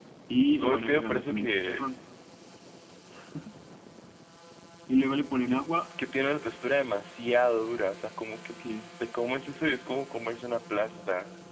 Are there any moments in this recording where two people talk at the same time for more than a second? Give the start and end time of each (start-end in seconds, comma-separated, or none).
0.5-1.8